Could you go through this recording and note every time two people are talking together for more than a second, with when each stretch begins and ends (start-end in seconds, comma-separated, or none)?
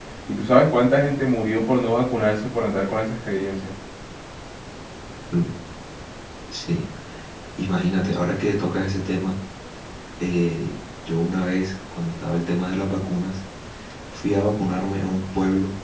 none